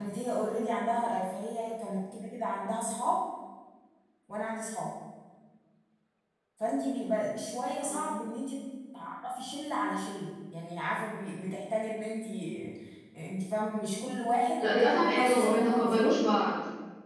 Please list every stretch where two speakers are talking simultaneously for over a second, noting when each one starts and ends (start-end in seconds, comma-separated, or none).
14.6-16.0